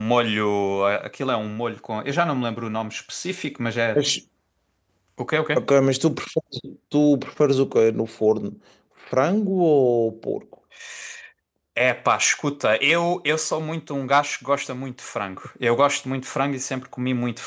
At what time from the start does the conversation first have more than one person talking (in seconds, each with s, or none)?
none